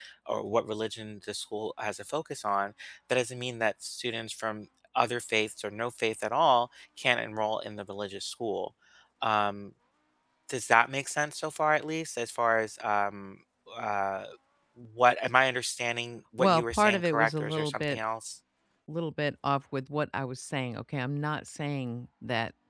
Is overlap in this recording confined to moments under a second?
No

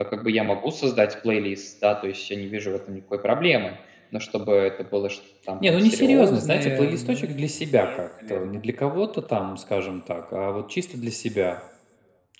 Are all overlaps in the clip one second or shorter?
No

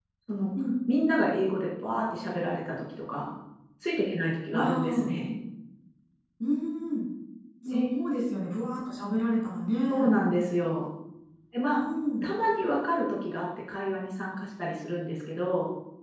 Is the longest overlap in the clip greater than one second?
No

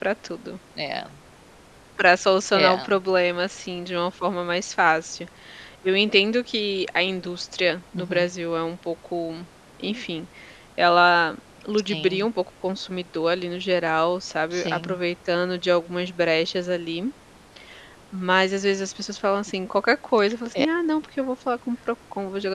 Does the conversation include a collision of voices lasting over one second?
No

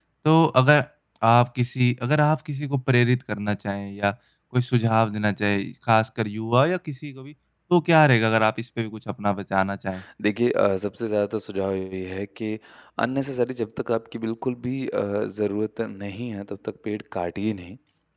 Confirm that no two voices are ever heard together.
Yes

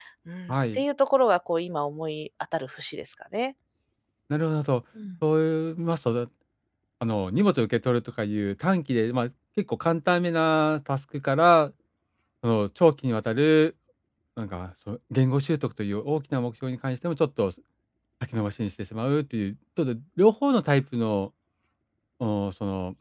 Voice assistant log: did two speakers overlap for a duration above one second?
No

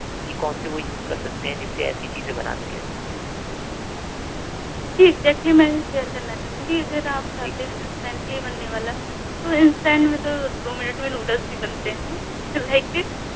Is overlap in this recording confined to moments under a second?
Yes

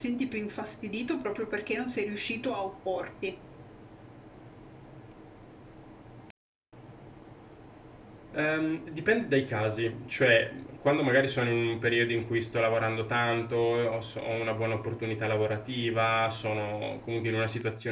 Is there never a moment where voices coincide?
Yes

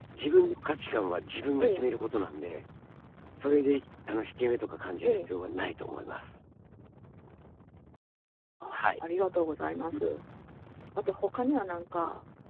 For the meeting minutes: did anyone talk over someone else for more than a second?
No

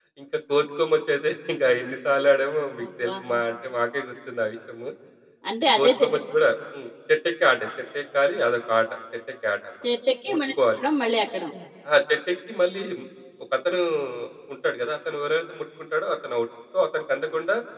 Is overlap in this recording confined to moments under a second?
Yes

